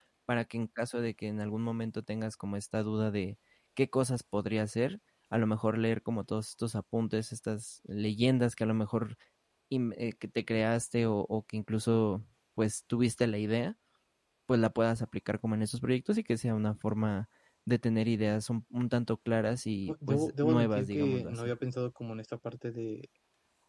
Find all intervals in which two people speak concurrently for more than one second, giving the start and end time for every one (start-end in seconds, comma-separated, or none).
19.9-21.5